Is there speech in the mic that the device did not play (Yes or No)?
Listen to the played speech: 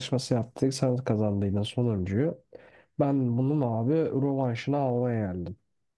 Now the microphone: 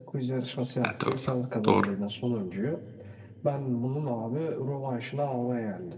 Yes